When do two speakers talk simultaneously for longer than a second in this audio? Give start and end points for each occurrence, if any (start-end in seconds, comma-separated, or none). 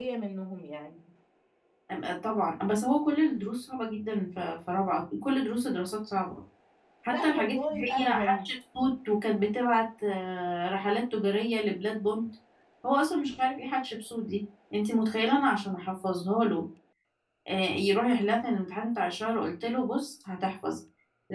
7.1-8.4